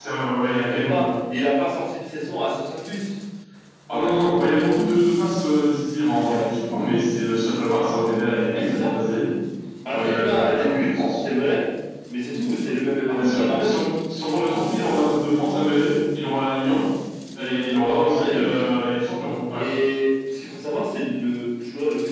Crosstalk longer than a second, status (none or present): present